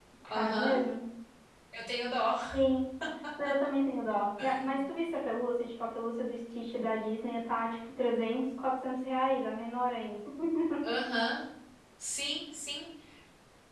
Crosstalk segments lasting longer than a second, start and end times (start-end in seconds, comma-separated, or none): none